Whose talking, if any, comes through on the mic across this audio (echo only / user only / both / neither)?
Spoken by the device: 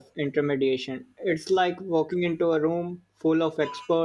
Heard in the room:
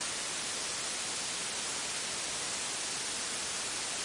neither